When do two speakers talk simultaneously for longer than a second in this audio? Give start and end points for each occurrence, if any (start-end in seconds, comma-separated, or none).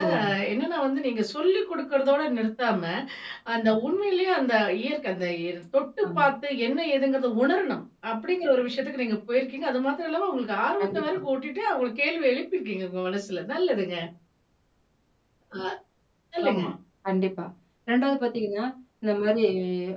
none